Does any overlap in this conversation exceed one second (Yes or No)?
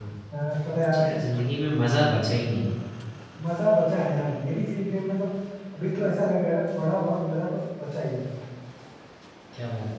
No